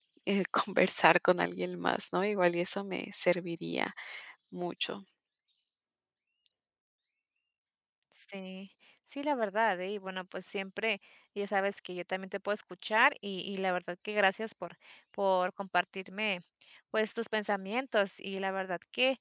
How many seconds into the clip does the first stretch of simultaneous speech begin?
none

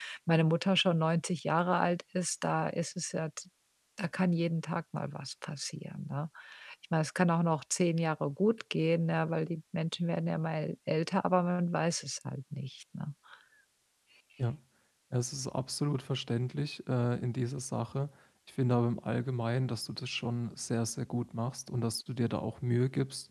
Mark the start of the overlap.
none

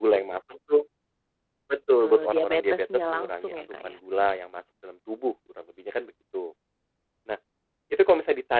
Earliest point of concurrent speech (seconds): 2.0 s

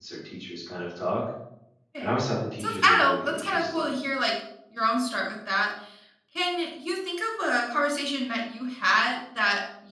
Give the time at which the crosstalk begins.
2.6 s

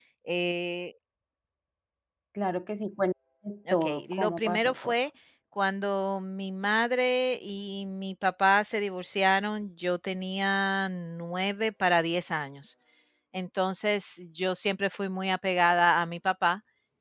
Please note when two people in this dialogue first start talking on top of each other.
3.7 s

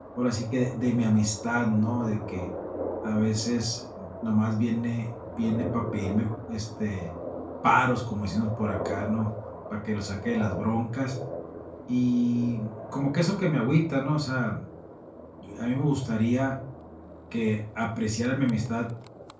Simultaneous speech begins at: none

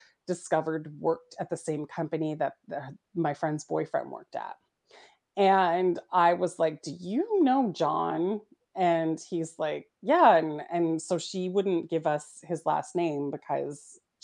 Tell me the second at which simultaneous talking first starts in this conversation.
none

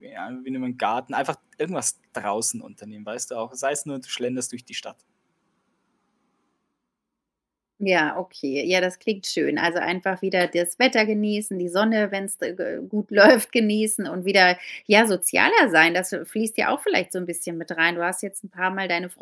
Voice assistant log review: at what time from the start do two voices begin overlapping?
none

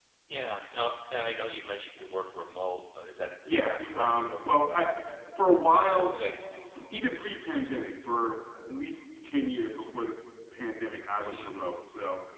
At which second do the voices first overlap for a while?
3.5 s

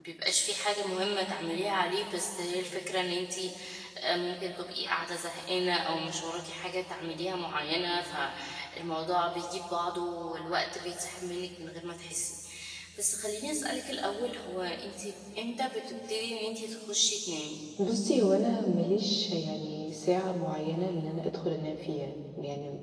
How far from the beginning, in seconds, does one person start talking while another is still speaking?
none

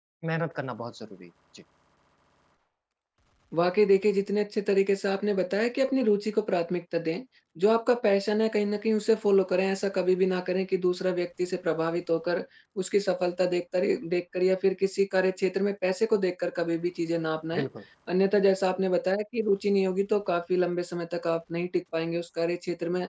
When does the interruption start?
none

